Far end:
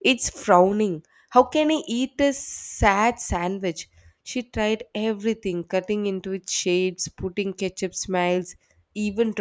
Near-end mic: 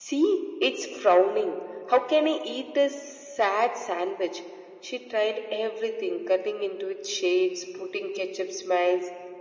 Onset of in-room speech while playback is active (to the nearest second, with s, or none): none